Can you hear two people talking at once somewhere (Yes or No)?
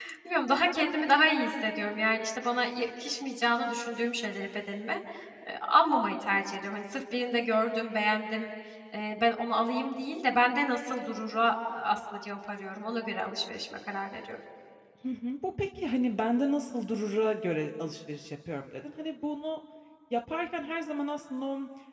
No